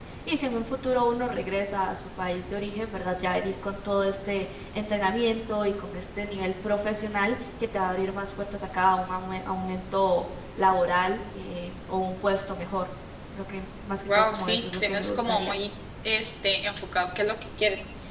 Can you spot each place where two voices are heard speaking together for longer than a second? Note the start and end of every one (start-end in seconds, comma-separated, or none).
14.1-15.5